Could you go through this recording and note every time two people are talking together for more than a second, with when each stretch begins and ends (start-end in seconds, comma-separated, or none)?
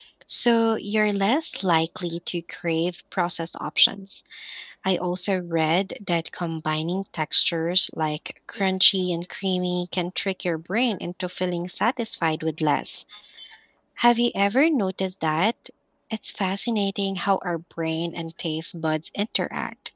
none